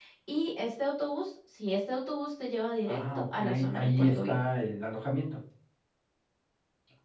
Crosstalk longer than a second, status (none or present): present